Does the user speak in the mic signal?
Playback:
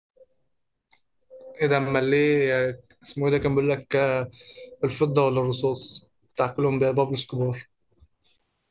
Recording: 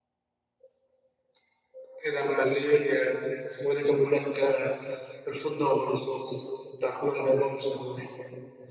No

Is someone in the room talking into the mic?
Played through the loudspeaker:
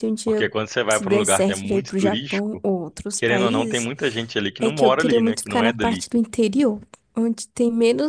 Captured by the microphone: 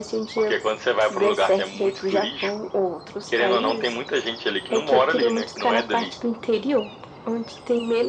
No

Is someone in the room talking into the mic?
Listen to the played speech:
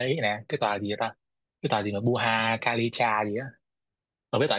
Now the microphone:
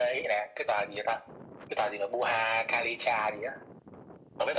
No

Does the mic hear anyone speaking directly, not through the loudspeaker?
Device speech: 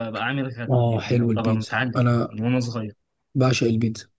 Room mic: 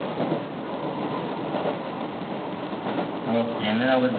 Yes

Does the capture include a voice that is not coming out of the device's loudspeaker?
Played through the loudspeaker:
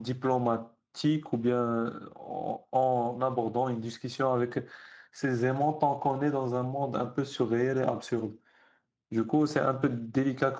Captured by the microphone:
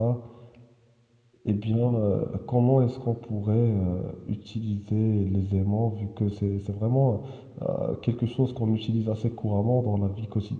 Yes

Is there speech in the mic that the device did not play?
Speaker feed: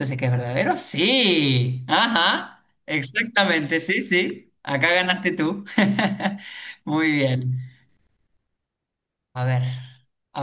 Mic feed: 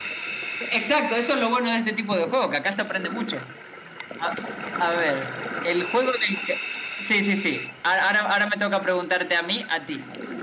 Yes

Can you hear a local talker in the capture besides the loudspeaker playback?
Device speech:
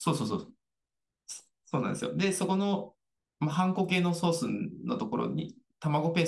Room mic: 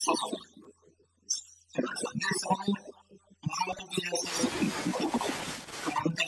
No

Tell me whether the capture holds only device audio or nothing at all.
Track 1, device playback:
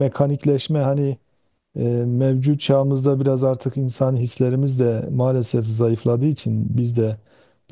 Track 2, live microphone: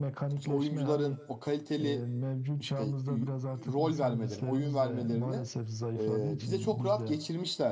No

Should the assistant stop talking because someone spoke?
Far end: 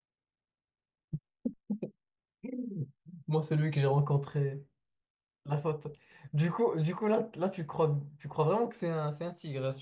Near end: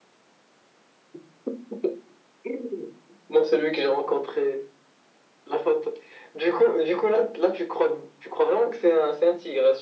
No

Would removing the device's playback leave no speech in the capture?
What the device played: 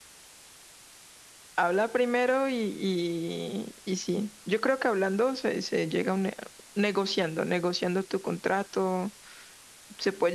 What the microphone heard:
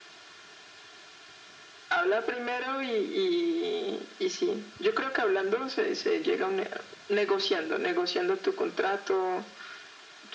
Yes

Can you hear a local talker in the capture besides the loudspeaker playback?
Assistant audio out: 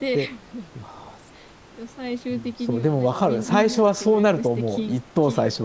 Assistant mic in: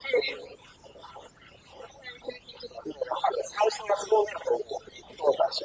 No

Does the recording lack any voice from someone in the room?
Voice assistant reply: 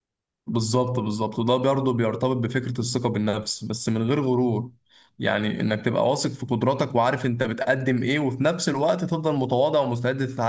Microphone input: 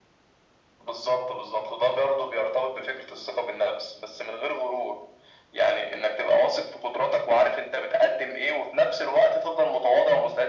Yes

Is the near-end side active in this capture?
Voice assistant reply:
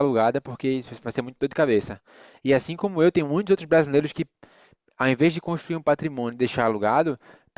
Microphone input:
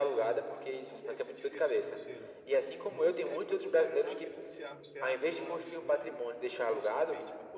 Yes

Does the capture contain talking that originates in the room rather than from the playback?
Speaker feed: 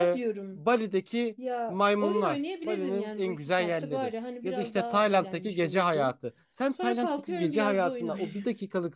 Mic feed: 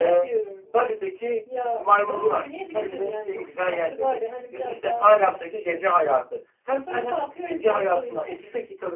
No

